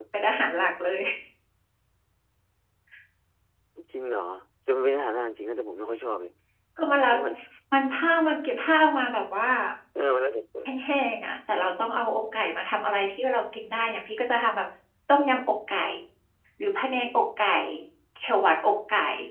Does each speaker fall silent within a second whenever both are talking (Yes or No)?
Yes